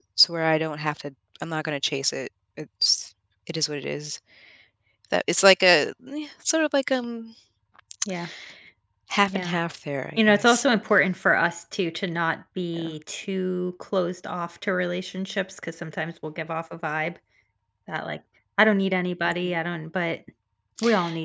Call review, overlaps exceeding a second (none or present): none